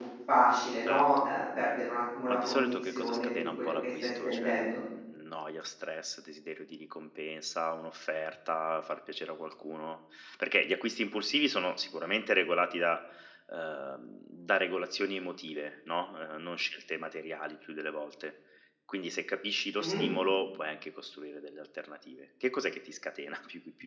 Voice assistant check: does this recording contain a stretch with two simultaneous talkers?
Yes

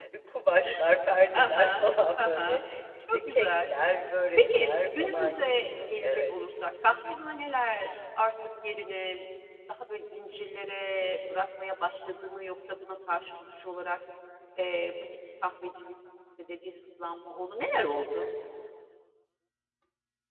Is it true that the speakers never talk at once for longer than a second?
No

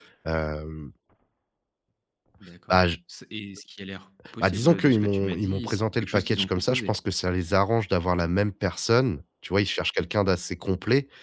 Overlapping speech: Yes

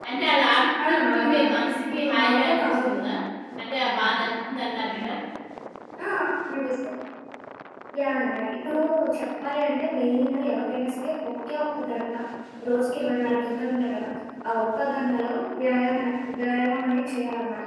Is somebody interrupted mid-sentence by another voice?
Yes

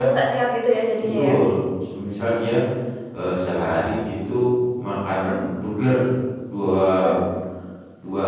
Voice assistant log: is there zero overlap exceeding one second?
Yes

